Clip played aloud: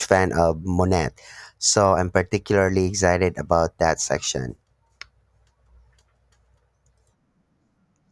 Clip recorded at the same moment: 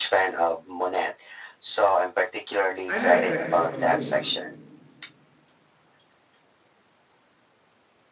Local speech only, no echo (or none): I know exactly what you mean.